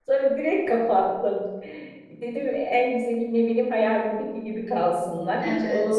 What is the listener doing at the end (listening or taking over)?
listening